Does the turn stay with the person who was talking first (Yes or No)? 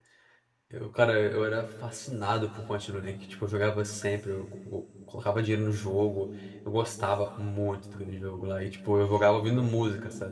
Yes